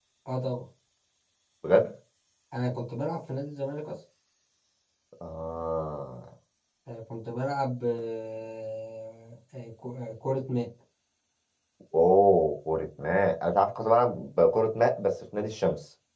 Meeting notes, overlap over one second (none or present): none